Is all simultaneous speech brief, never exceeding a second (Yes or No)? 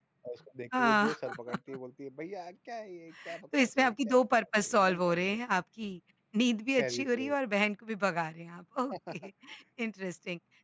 No